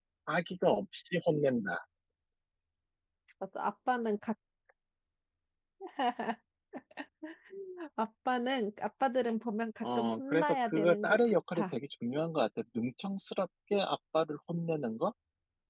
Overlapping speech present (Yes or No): Yes